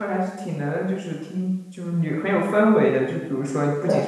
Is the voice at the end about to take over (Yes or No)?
No